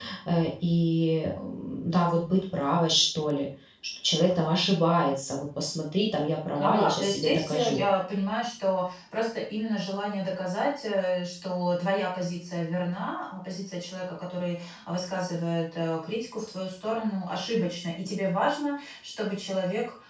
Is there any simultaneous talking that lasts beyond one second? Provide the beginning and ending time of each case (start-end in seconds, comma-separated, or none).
6.6-7.8